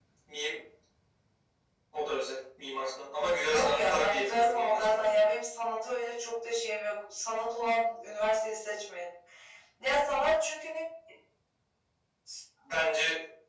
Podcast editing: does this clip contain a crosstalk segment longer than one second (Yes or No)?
Yes